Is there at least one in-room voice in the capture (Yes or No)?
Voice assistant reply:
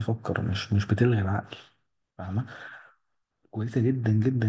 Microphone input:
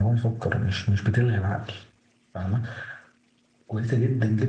No